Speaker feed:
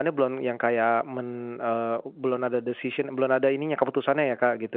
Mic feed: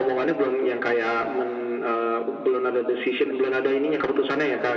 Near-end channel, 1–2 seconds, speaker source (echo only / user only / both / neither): echo only